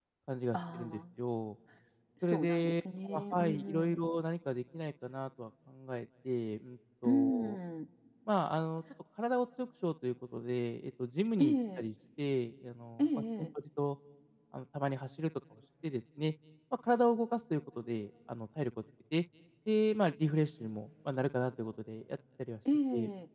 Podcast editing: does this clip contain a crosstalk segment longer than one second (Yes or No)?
Yes